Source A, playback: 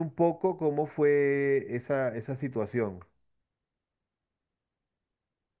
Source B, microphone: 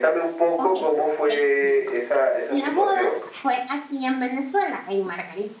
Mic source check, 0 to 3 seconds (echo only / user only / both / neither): both